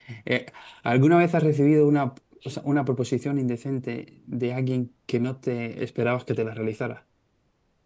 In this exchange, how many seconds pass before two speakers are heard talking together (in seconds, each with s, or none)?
none